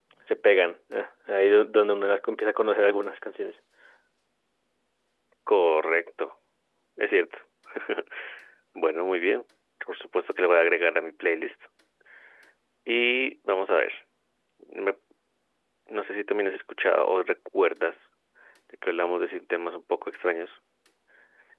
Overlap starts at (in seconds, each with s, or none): none